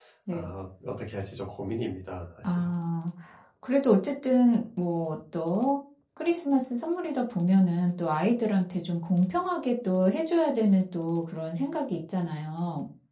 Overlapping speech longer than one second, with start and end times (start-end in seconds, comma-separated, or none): none